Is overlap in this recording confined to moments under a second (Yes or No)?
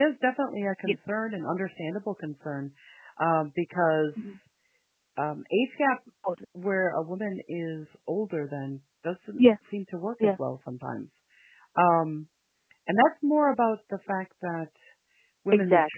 Yes